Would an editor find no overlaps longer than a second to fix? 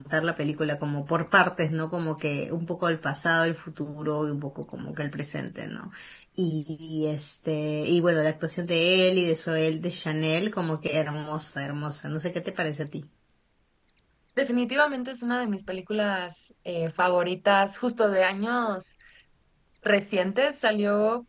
Yes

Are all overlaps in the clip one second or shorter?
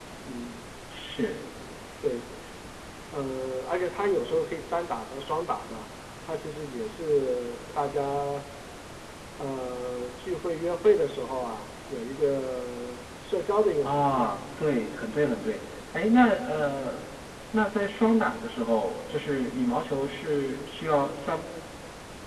Yes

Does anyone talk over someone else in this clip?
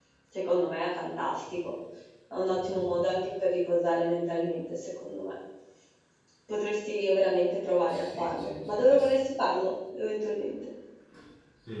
Yes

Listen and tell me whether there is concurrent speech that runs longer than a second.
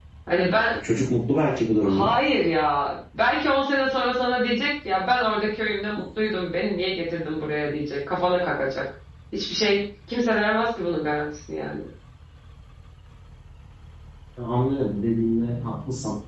No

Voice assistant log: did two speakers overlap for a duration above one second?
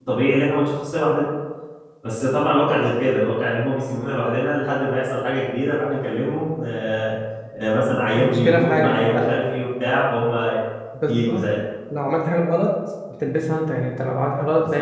Yes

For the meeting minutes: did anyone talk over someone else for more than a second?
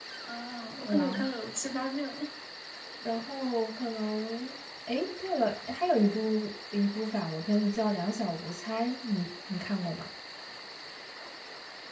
No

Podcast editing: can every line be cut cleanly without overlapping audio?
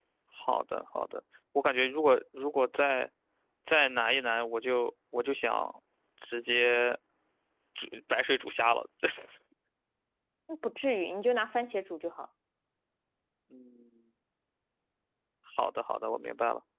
Yes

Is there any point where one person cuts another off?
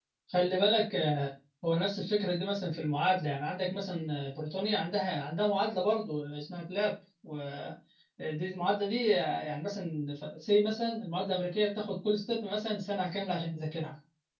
No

